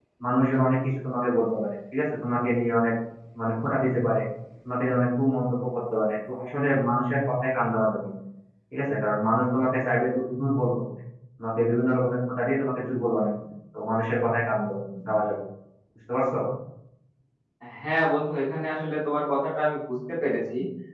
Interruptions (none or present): none